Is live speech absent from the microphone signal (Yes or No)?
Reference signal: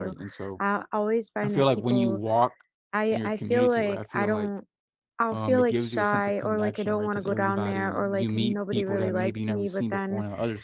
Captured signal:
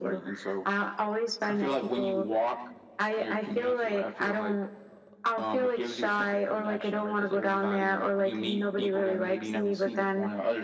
Yes